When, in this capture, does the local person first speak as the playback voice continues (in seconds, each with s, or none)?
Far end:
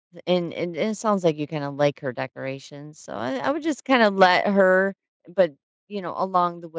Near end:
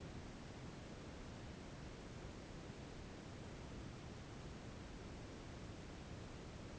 none